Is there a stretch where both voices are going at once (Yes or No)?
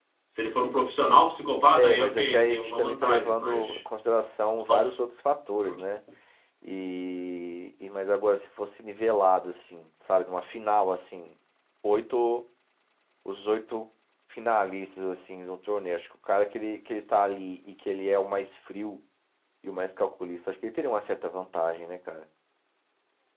Yes